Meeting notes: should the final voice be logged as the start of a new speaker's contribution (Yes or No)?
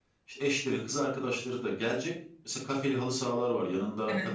No